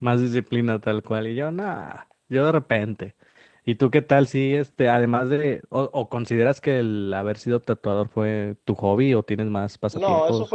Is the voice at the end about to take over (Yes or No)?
Yes